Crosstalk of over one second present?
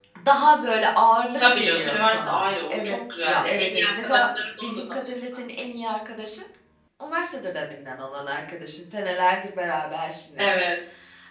Yes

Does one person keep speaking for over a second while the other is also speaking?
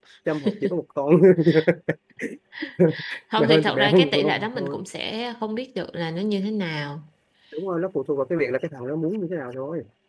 Yes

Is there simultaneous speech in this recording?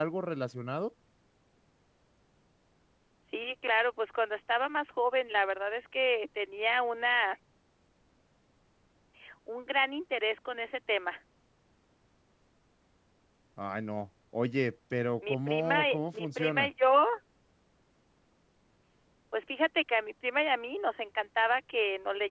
Yes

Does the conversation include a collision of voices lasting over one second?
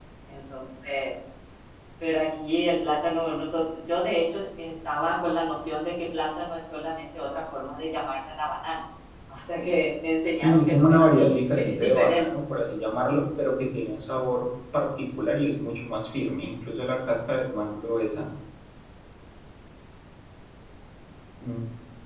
Yes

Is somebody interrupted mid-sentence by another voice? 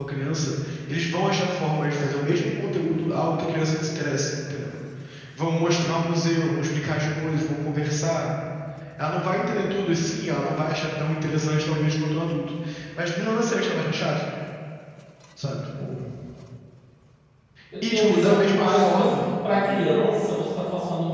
Yes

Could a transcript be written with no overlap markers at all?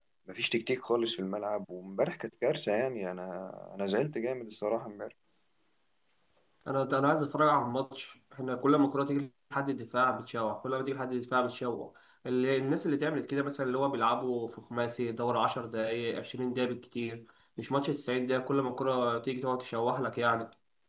Yes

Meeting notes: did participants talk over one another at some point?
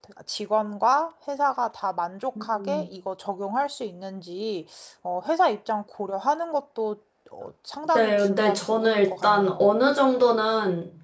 Yes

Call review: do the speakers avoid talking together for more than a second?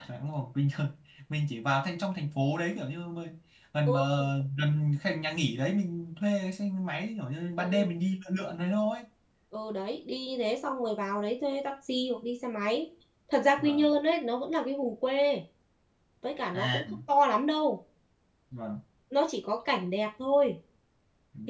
Yes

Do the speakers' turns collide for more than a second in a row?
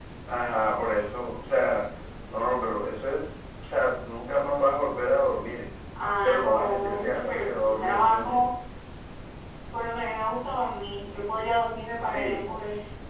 Yes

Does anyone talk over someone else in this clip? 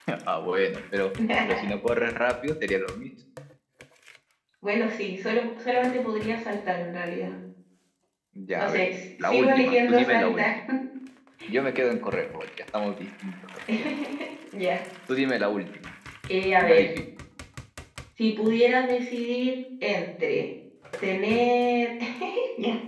Yes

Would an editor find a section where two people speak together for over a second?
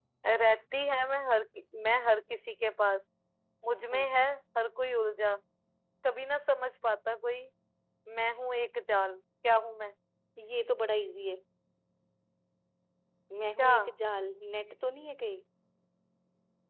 No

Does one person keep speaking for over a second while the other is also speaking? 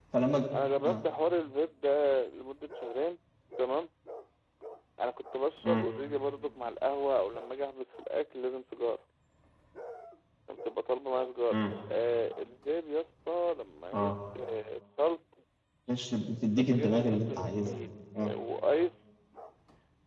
Yes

